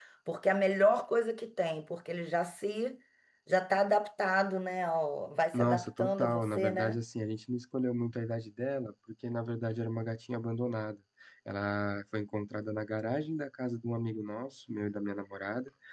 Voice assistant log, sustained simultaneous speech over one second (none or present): present